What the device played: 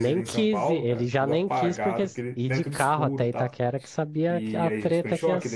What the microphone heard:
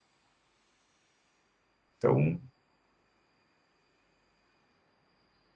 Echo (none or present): none